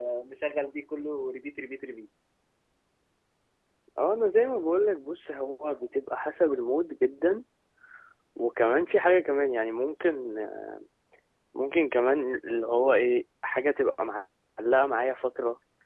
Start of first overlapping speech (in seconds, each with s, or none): none